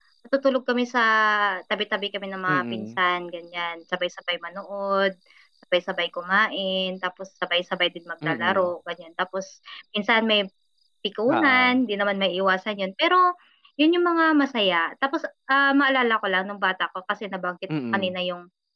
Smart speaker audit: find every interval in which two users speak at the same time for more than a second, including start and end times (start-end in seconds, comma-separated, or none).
none